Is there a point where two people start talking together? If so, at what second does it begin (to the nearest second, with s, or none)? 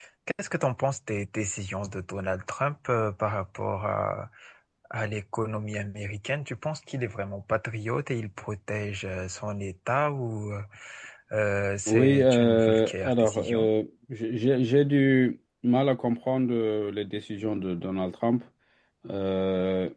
12 s